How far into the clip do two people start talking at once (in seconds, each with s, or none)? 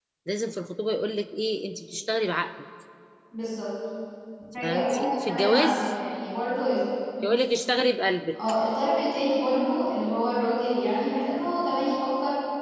4.6 s